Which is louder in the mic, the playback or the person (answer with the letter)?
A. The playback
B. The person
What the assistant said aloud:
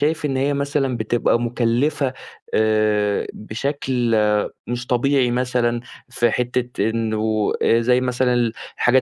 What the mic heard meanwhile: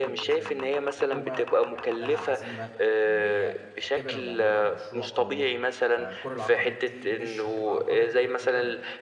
A